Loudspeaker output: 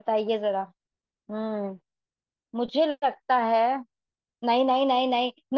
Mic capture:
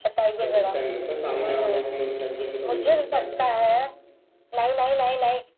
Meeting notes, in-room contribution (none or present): present